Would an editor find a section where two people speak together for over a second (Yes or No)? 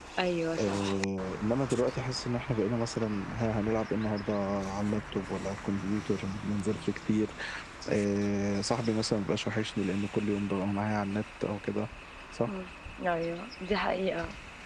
No